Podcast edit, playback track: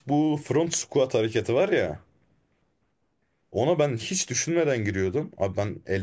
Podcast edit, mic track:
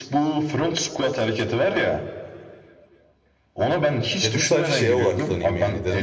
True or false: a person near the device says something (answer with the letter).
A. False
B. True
B